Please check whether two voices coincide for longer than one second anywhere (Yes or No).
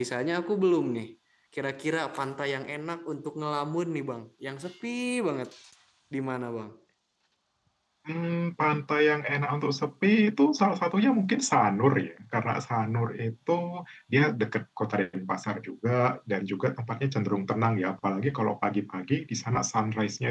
No